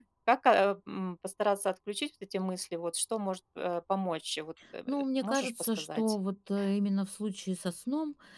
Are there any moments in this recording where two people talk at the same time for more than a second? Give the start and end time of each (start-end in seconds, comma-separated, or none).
4.9-6.2